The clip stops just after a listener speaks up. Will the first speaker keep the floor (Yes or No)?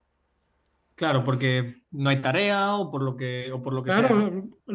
No